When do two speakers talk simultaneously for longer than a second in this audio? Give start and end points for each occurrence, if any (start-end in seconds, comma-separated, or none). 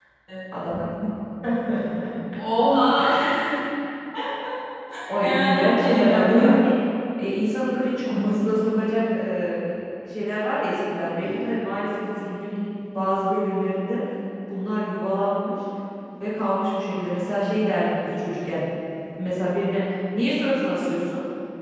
5.2-6.5